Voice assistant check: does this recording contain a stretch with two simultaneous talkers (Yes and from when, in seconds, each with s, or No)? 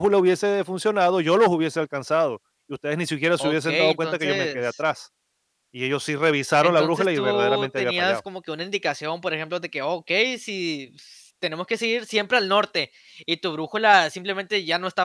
Yes, from 3.4 s